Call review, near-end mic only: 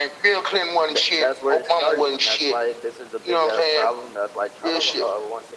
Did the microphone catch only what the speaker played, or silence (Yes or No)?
Yes